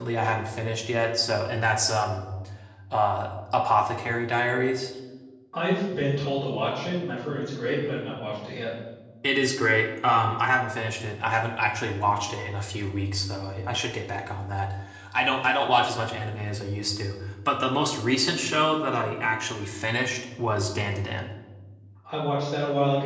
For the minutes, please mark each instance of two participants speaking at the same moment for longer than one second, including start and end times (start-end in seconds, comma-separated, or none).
none